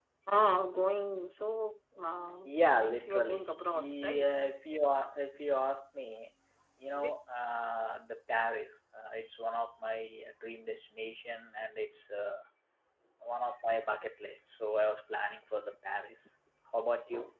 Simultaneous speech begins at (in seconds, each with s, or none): 2.4 s